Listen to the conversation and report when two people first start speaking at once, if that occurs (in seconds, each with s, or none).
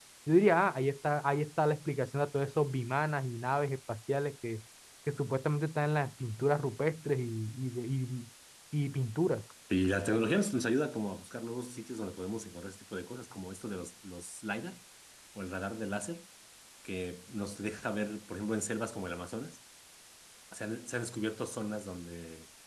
none